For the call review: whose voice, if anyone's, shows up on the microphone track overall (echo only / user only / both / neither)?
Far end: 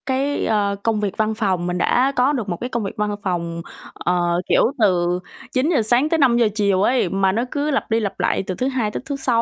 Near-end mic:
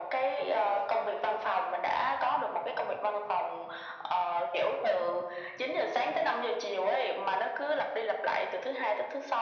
echo only